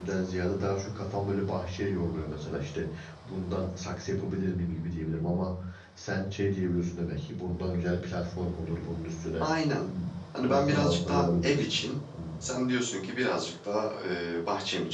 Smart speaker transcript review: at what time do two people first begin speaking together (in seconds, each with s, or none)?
10.4 s